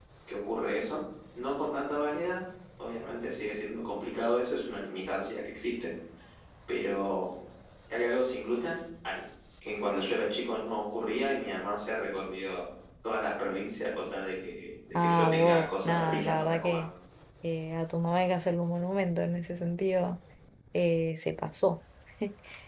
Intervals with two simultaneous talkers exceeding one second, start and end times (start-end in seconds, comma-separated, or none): 14.9-16.8